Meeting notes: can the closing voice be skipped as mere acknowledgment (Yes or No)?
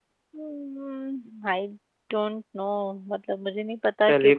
No